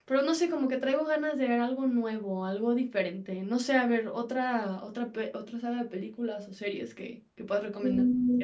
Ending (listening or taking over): taking over